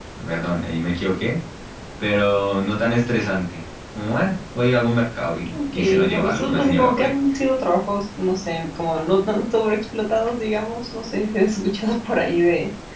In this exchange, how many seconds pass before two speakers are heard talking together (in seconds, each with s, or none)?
5.5 s